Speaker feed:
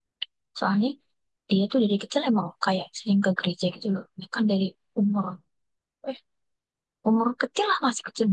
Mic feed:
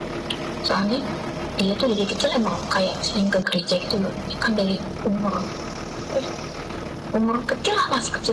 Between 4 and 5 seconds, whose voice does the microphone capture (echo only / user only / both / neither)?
echo only